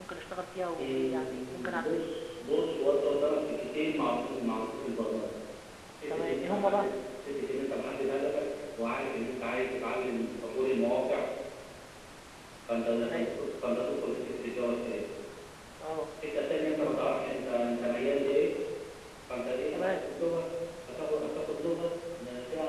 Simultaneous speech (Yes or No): Yes